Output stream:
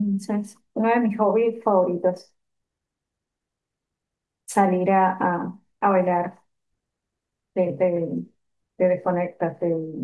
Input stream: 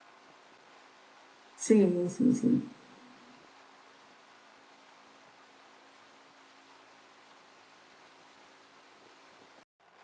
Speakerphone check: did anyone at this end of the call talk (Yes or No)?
Yes